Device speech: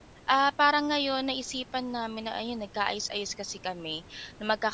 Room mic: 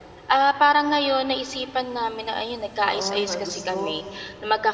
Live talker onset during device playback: 2.8 s

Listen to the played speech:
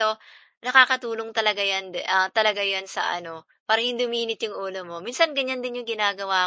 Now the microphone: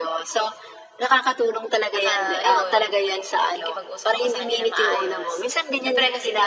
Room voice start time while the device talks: 1.9 s

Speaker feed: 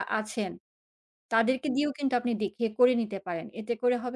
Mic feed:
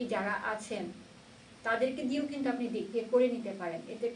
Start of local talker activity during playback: none

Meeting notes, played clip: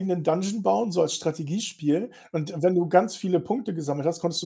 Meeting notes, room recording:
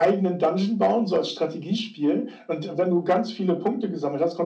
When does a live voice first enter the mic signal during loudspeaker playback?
none

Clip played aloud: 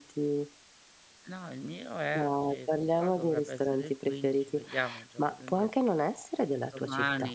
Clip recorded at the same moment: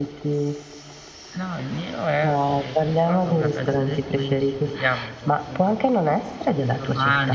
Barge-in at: none

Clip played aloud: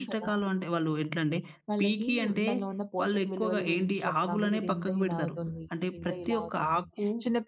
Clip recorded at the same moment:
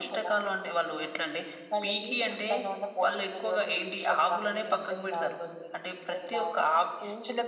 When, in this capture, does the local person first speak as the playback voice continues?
none

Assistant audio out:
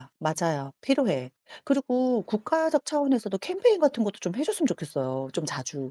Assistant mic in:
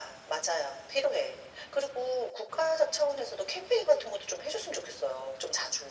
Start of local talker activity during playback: none

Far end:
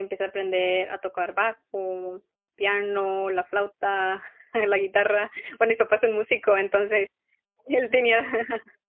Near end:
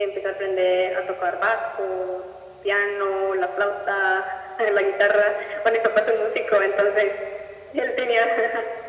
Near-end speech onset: none

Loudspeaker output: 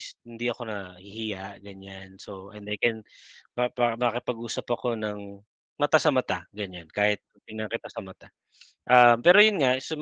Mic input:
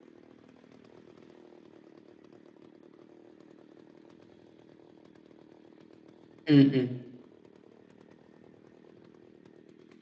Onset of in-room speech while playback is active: 6.5 s

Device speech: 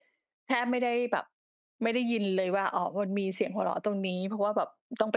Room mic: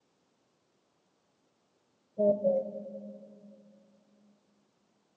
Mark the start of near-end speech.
2.2 s

